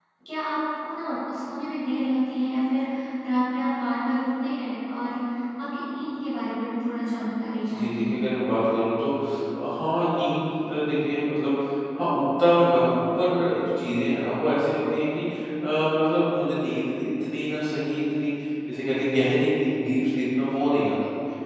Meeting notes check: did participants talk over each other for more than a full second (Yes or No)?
No